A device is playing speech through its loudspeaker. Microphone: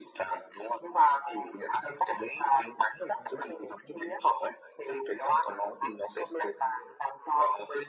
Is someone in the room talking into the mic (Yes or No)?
No